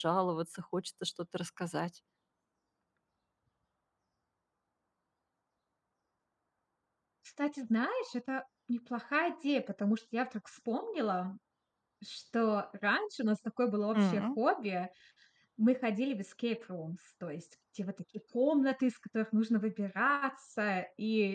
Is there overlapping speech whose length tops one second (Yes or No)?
No